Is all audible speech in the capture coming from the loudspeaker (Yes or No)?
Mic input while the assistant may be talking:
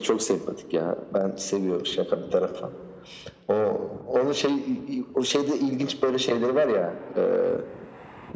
Yes